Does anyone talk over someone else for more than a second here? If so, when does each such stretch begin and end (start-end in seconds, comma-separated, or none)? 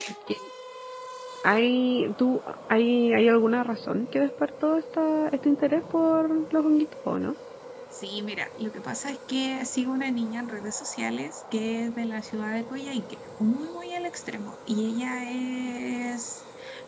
none